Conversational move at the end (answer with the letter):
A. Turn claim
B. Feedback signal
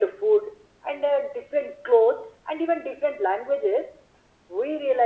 B